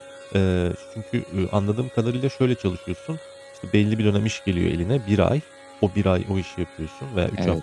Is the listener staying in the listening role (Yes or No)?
Yes